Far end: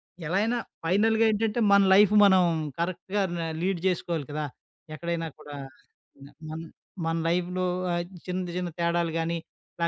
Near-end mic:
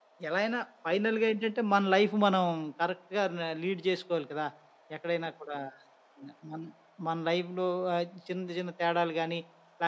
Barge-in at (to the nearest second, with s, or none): none